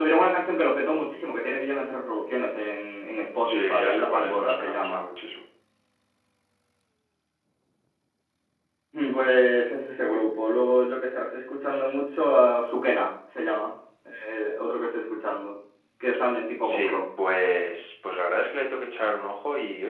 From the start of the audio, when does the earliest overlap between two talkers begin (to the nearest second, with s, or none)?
3 s